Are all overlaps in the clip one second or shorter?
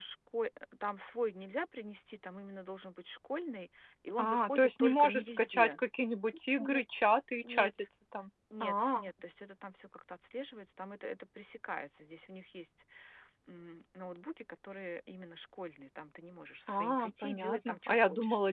No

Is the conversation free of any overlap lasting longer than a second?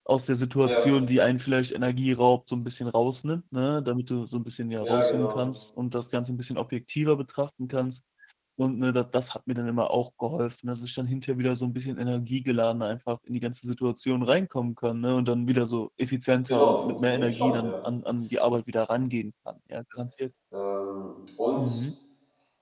No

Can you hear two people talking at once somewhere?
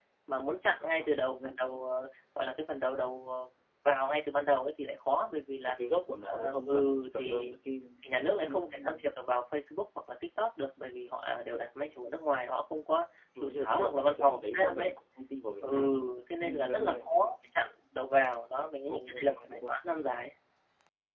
Yes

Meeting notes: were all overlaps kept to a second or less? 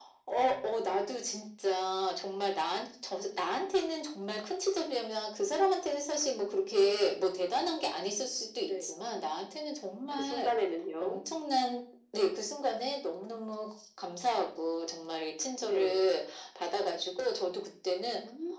Yes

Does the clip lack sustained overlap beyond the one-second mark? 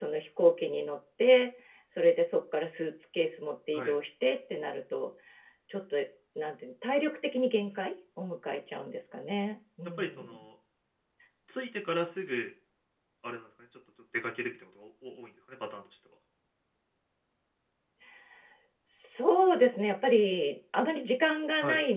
Yes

